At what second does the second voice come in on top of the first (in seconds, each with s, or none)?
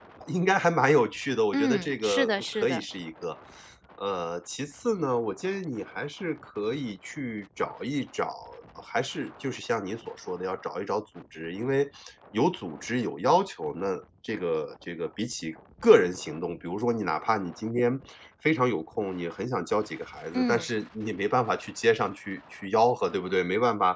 1.5 s